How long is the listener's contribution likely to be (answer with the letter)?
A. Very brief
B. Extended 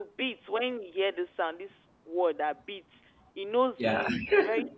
A